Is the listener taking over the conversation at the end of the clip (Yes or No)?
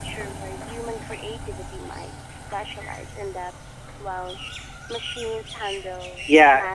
Yes